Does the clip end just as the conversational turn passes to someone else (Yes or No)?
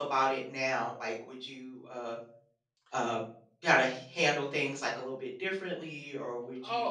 Yes